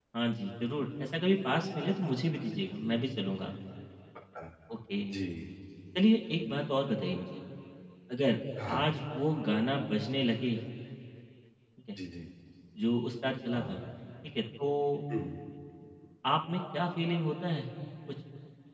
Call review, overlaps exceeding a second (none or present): none